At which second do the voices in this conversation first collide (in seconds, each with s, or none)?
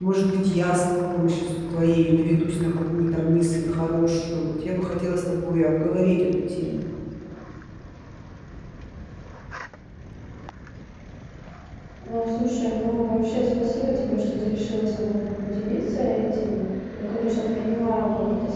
none